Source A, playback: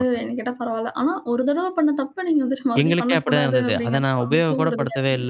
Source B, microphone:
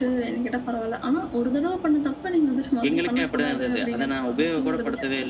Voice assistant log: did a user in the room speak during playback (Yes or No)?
No